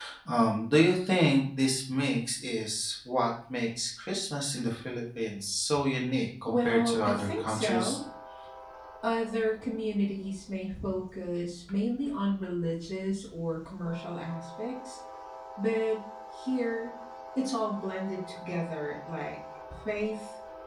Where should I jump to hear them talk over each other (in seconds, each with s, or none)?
6.5 s